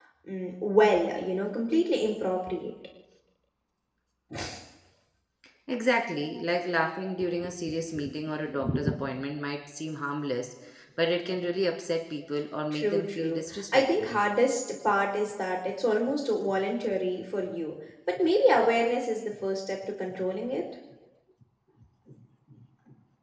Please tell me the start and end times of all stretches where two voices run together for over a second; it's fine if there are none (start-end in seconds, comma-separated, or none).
12.7-14.2